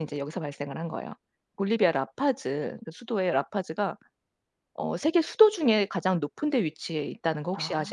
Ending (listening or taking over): taking over